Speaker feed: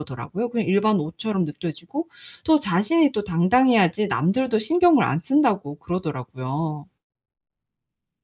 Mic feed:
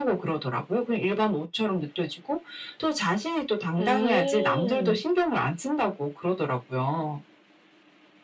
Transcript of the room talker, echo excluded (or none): 음.